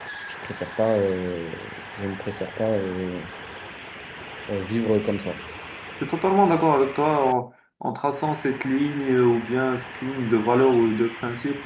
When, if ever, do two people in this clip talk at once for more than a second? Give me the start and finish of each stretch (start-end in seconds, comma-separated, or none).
none